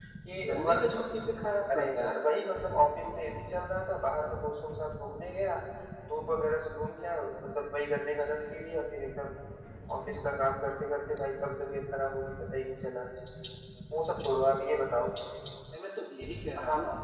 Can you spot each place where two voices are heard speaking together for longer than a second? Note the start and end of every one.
none

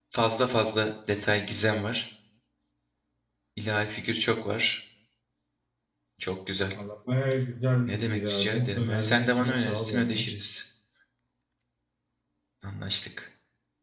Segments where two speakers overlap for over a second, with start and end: 7.9-10.3

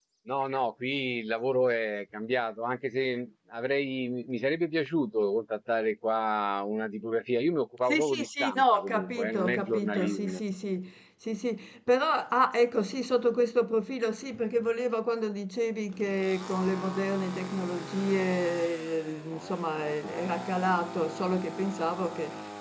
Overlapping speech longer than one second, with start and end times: 7.9-10.4

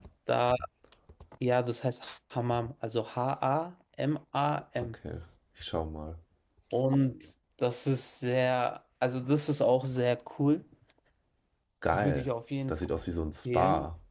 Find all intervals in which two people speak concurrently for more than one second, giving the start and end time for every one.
none

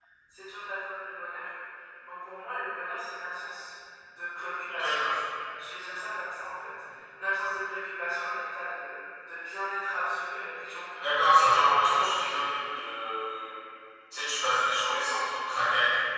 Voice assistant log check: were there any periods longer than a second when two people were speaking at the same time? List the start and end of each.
11.0-12.4

